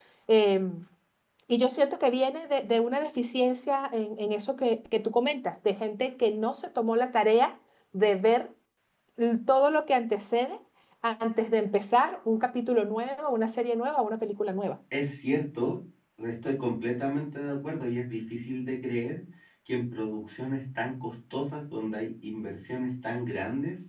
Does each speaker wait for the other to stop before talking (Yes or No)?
Yes